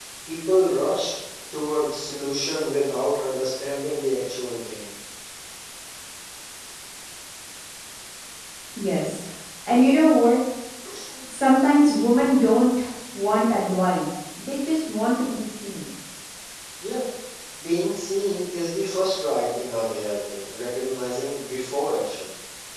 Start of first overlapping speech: none

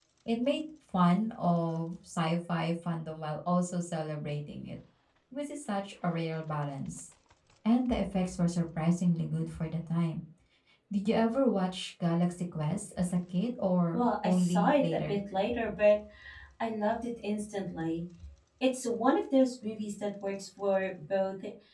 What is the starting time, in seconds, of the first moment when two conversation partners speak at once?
13.9 s

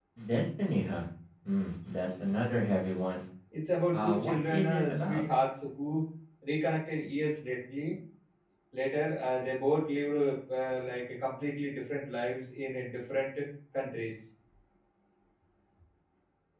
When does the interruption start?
3.9 s

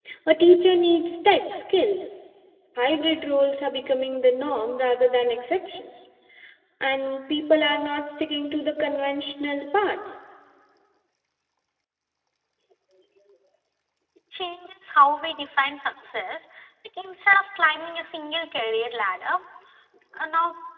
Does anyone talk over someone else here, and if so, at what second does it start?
none

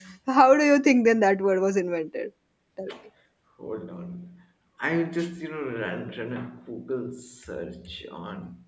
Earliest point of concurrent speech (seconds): none

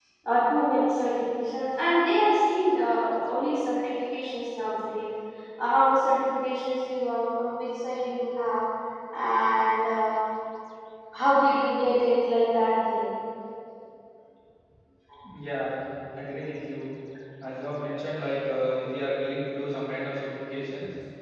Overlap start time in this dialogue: none

